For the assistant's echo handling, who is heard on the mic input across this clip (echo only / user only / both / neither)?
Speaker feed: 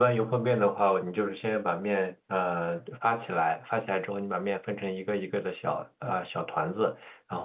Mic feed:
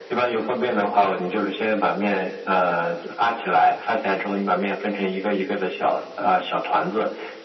echo only